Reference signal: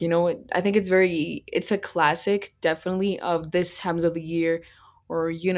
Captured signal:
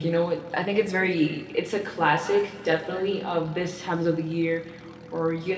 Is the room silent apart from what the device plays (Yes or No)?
Yes